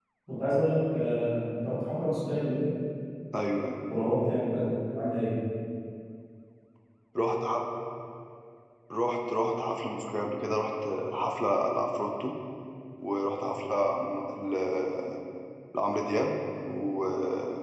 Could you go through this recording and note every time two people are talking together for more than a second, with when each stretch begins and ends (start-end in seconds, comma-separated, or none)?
none